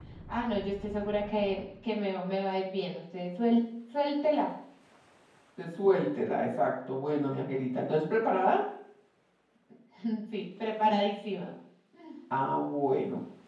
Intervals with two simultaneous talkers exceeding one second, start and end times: none

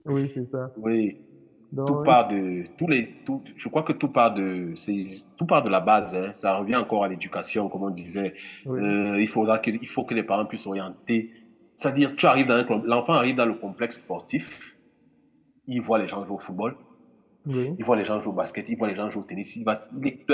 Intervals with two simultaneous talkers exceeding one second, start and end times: none

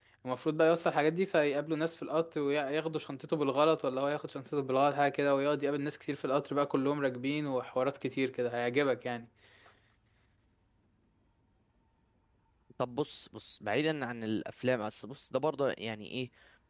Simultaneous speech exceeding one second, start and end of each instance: none

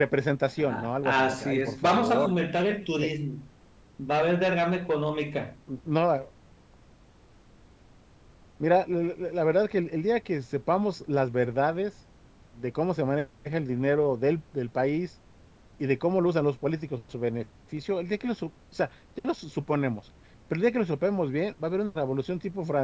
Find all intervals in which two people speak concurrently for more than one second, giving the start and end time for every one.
0.6-2.3

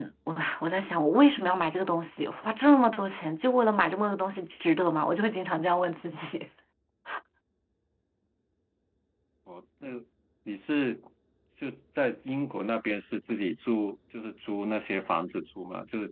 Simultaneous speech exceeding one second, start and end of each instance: none

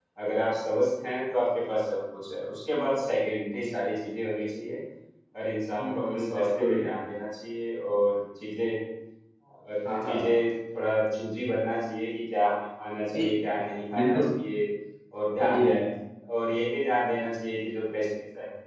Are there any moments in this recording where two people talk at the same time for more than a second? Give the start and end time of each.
5.8-7.0

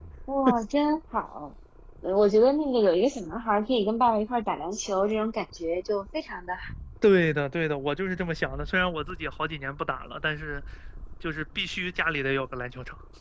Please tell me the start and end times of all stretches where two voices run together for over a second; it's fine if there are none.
none

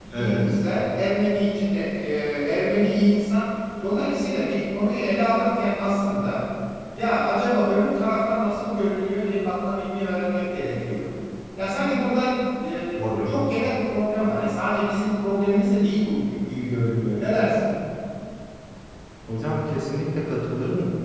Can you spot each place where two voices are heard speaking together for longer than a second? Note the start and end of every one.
none

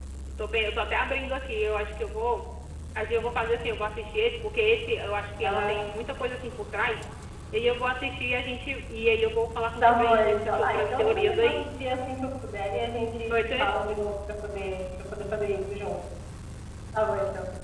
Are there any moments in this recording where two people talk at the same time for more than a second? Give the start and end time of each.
9.8-11.6

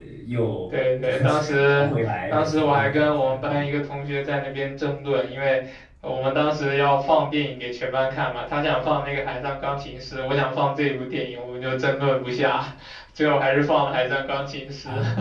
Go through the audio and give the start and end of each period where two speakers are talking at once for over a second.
2.3-3.7

